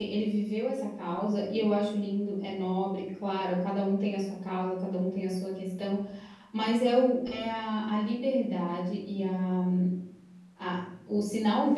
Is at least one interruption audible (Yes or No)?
No